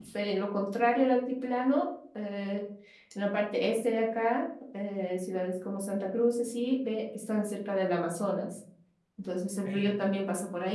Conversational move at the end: listening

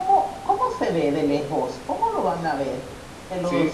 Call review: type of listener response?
listening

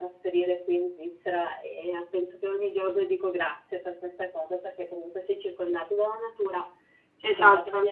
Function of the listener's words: listening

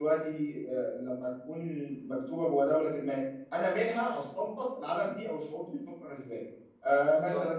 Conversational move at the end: listening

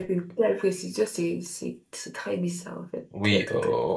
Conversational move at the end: taking over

